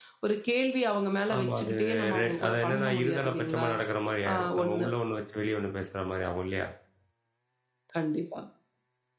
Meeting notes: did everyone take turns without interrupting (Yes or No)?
No